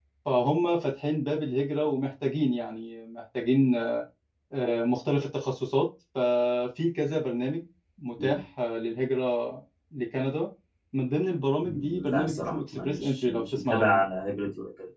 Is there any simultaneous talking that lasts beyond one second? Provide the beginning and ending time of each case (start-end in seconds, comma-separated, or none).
11.6-14.0